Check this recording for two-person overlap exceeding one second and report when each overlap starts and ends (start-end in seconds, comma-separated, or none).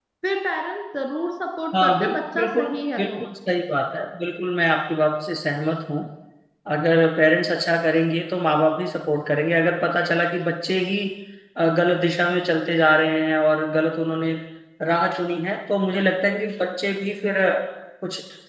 1.8-3.2